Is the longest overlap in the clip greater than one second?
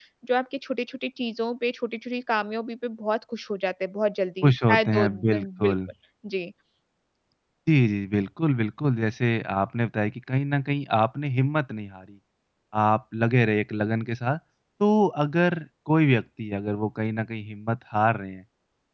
Yes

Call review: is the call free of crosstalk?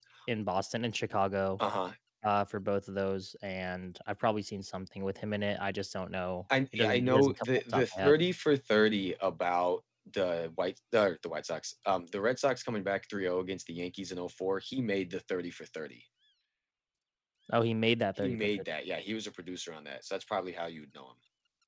No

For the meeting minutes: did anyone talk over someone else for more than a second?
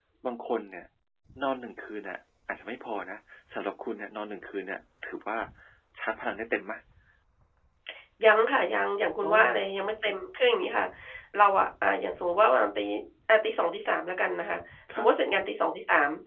No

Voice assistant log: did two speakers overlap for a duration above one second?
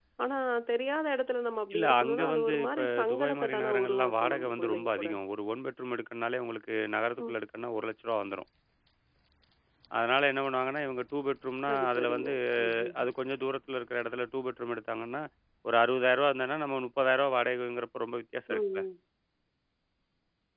Yes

